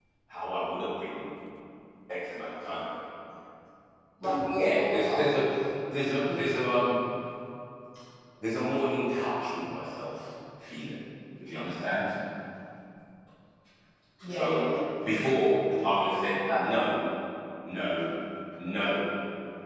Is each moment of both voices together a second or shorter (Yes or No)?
No